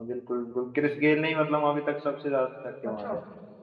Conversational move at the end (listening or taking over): taking over